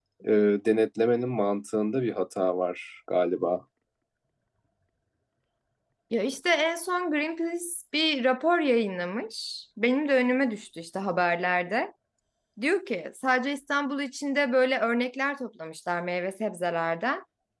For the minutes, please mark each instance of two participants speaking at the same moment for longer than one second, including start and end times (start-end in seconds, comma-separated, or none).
none